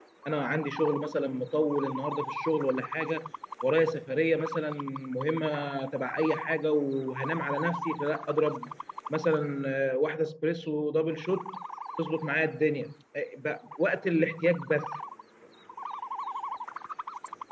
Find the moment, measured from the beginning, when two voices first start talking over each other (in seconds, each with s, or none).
none